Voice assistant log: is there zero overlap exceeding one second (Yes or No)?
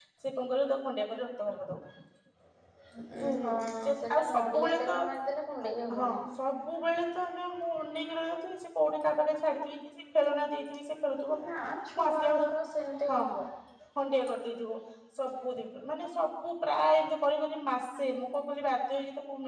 No